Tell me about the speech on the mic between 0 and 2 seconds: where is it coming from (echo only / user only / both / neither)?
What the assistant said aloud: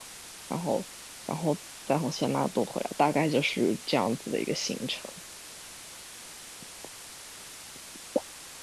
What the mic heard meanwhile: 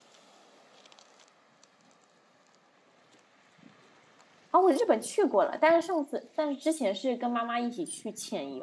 neither